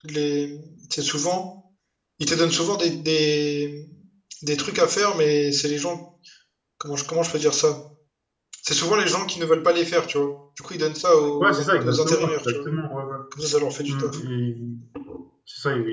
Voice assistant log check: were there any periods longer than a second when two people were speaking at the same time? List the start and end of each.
11.4-12.7

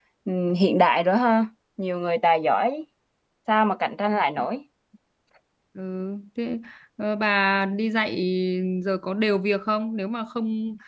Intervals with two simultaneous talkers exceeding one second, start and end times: none

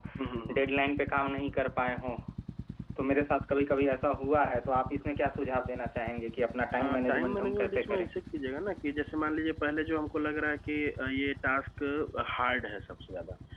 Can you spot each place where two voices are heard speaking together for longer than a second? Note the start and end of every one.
6.8-8.1

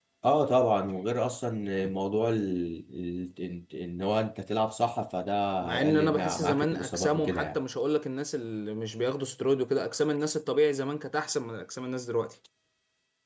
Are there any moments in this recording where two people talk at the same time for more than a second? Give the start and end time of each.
5.6-7.6

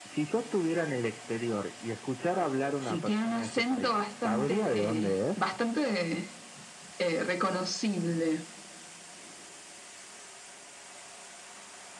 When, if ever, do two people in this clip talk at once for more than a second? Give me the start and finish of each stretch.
2.8-5.4

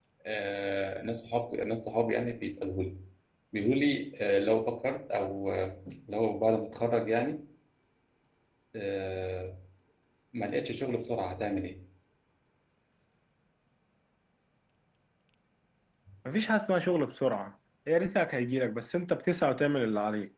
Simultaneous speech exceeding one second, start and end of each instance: none

